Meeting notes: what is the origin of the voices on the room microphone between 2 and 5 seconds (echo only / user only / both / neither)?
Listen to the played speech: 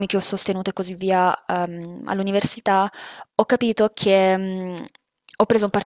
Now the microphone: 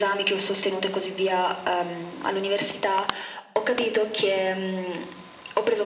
echo only